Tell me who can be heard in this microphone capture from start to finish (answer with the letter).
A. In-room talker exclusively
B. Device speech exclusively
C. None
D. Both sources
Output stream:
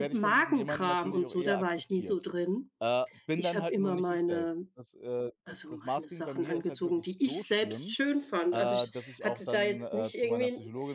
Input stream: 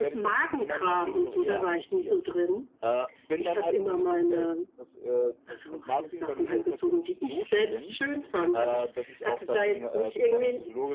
B